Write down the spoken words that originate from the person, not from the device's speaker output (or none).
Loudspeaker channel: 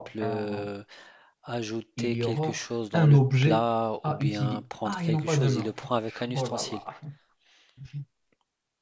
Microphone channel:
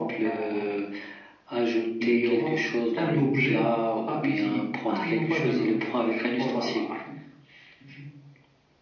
none